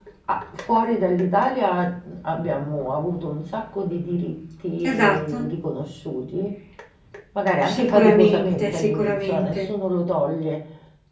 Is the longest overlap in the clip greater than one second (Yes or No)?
Yes